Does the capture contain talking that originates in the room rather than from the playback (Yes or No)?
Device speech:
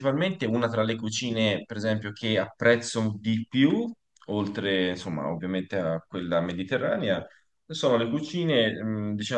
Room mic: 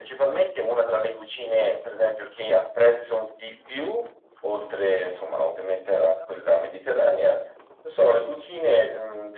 No